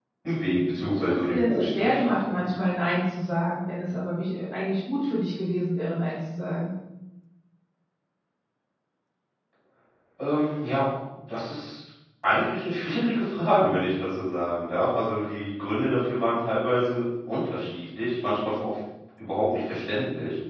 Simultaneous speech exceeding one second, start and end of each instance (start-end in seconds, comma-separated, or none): 1.1-2.4